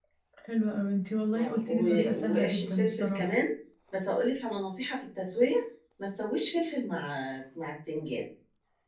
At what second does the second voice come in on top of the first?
1 s

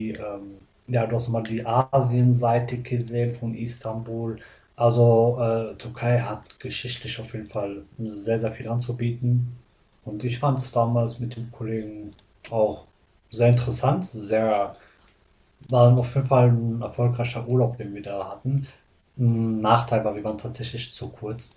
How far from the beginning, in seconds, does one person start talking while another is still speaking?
none

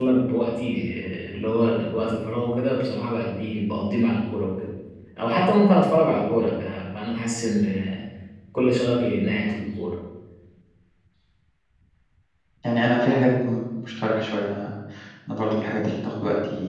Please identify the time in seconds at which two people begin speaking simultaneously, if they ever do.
none

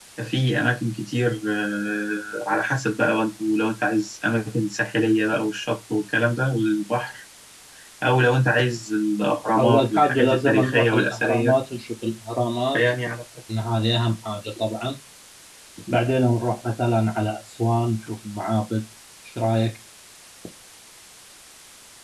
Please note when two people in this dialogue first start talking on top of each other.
10 s

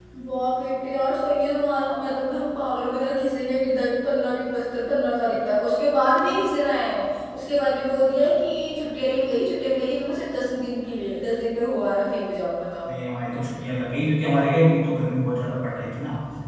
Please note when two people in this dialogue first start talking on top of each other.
none

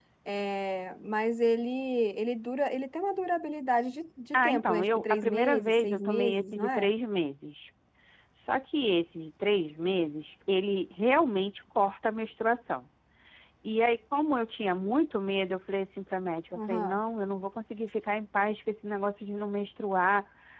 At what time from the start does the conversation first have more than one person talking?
4 s

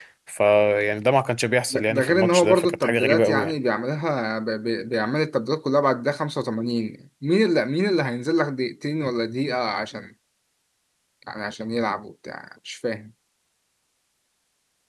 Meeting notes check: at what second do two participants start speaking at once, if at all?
2 s

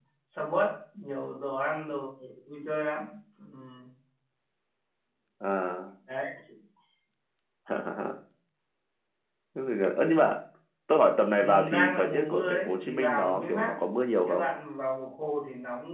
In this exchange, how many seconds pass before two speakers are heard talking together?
11 s

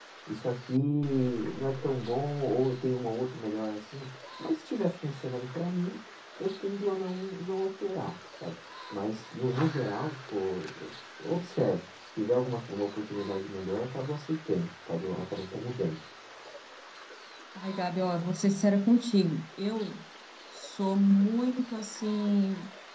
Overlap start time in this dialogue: none

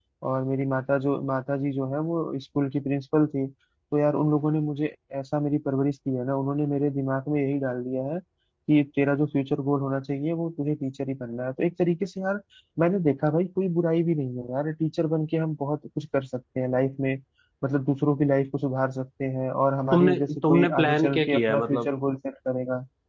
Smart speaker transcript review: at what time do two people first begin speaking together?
20 s

